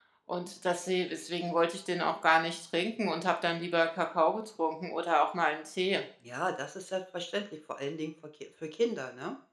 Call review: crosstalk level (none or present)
none